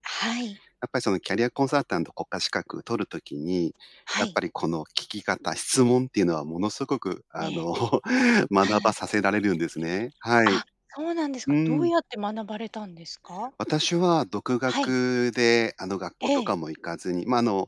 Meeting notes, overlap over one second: none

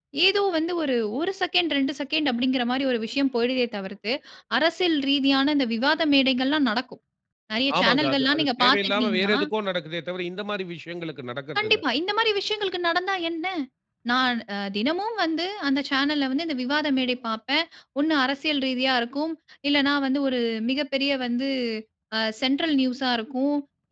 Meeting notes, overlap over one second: present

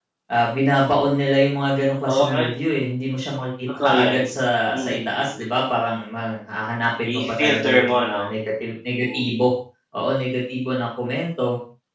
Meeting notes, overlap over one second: present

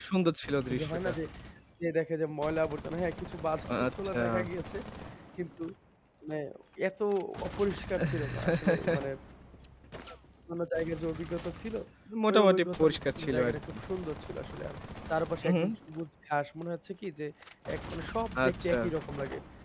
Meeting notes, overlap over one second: present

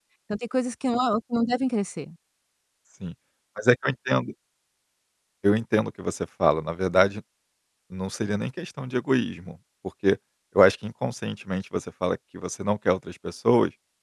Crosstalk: none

